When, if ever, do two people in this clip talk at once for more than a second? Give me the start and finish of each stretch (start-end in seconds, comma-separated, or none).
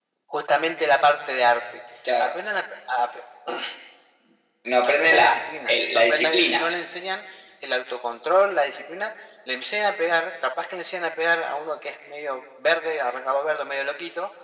4.8-6.8